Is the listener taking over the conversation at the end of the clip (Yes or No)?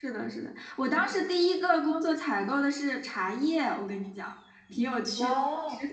No